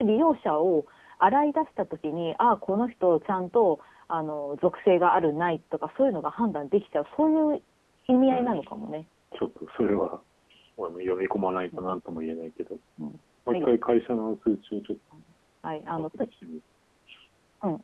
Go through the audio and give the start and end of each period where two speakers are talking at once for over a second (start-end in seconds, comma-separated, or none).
none